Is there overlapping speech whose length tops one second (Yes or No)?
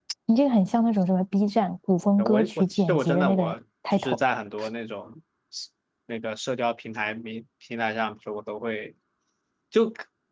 Yes